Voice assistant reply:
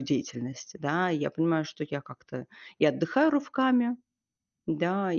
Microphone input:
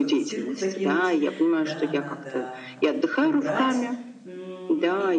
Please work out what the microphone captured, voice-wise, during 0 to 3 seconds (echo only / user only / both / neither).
both